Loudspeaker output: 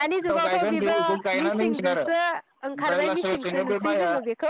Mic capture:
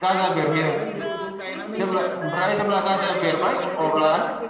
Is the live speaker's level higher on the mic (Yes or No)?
Yes